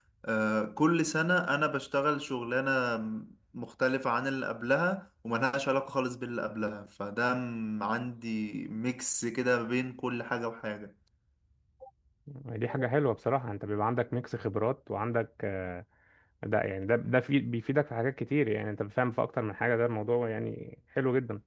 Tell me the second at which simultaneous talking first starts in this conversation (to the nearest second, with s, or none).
none